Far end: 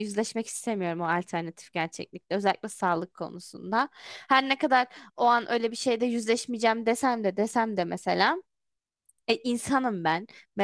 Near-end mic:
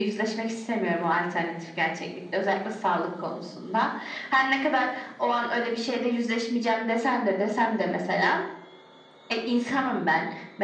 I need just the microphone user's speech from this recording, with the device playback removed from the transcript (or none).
none